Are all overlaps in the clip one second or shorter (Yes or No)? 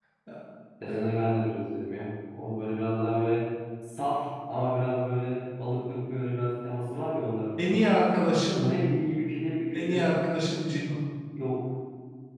Yes